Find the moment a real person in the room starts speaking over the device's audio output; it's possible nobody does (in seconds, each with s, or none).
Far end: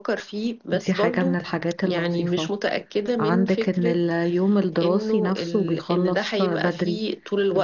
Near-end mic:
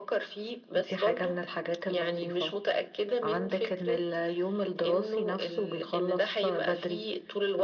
none